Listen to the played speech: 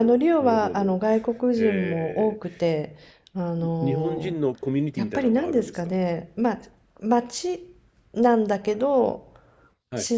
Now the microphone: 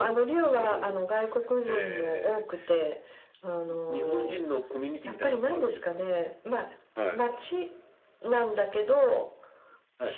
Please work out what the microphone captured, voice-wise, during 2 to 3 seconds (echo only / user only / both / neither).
echo only